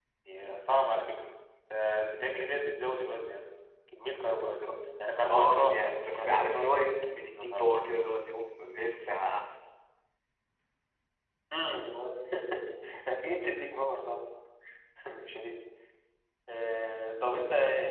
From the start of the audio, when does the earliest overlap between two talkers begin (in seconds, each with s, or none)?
5.2 s